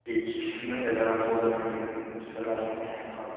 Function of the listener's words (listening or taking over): listening